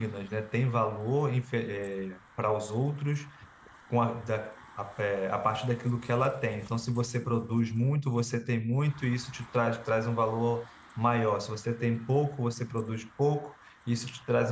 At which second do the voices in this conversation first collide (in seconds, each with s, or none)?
none